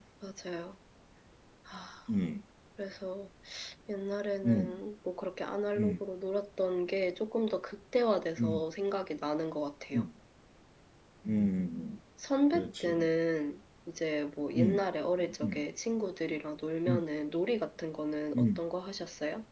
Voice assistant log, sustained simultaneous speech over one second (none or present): none